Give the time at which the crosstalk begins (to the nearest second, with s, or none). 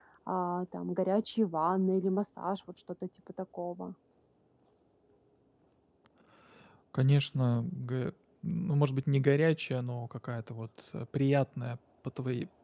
none